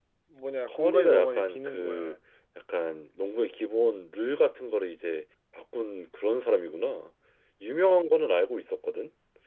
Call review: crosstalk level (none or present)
present